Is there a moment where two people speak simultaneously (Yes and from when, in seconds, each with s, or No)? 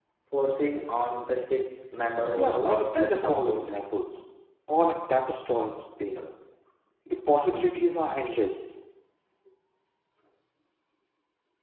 Yes, from 2.4 s